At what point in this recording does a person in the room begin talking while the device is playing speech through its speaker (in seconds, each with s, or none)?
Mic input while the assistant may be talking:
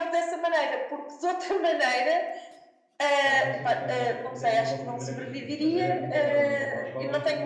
3.2 s